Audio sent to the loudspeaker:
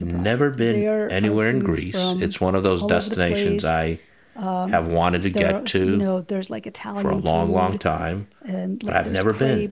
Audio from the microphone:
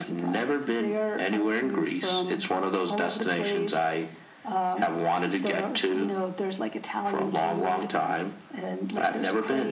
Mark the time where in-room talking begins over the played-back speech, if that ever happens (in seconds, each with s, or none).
none